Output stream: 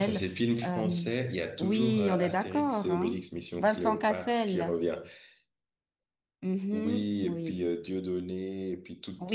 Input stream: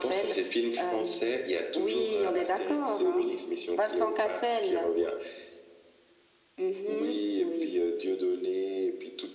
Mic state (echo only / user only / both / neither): echo only